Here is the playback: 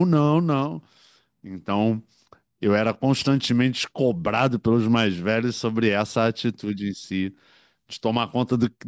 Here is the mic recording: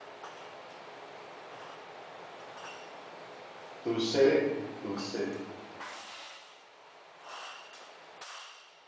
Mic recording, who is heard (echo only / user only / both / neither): user only